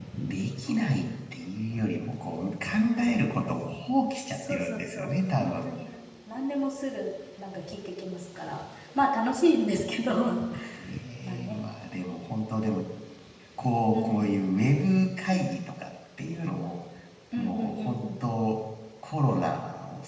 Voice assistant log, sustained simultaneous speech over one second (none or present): present